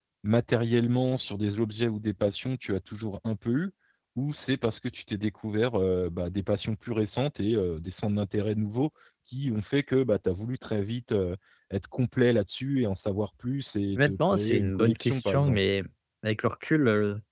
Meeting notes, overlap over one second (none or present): present